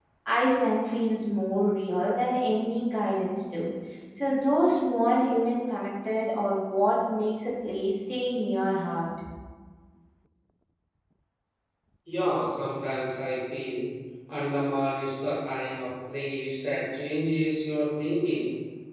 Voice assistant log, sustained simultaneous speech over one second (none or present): none